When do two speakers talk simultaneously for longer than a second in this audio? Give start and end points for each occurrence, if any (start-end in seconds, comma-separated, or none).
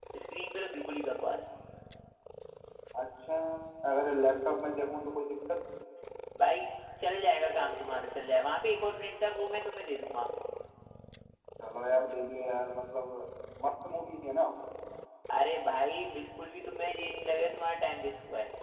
none